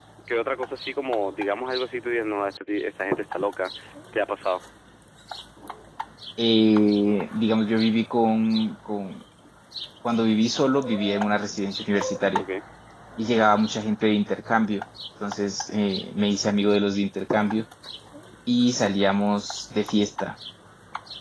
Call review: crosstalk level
none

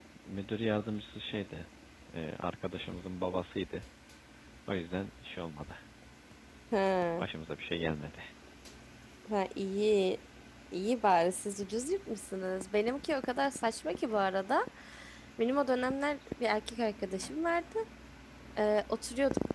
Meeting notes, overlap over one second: none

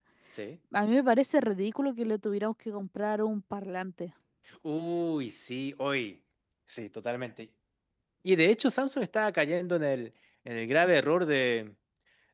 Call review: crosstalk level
none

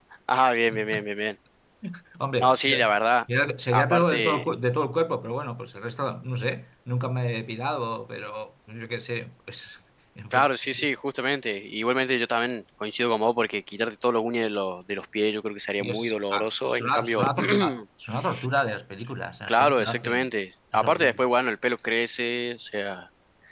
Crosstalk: present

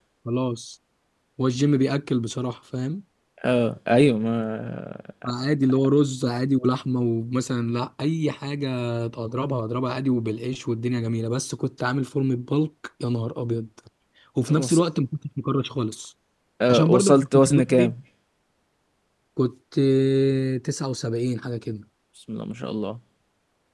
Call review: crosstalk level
present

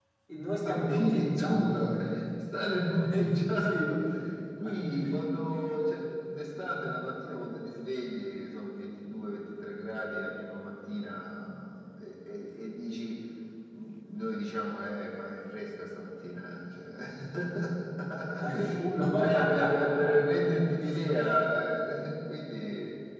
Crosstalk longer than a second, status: present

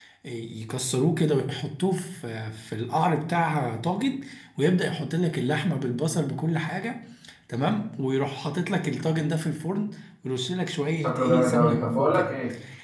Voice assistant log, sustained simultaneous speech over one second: present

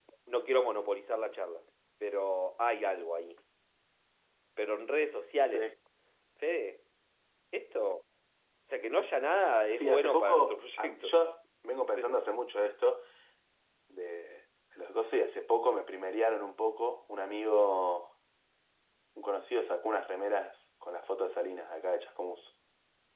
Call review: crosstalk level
present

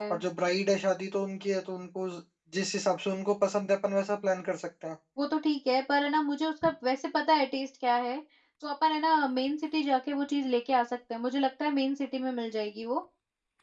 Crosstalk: none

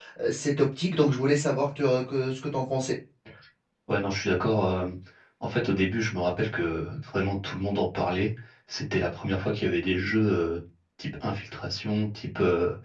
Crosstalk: none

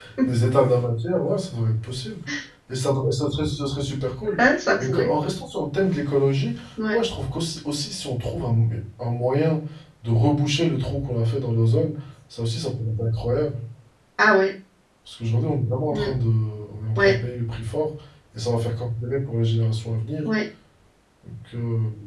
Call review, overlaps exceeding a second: none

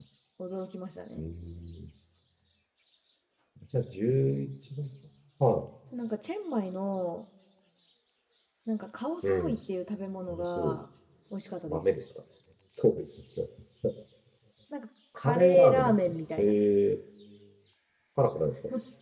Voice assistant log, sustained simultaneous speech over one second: present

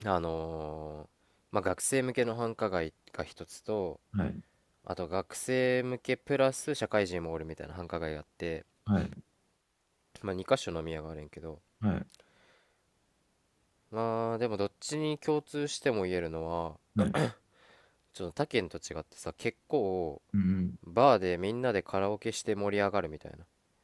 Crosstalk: none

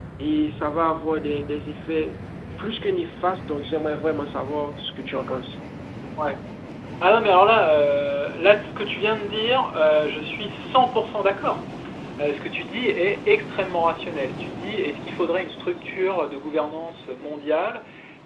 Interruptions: none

